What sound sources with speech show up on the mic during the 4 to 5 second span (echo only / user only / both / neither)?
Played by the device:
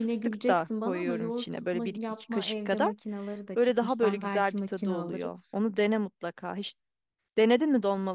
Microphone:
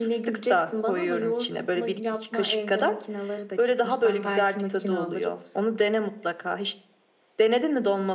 echo only